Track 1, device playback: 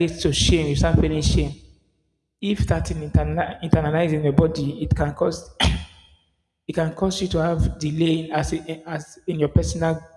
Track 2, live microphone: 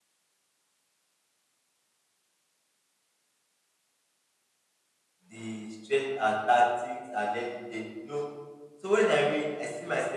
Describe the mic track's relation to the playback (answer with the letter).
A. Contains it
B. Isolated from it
B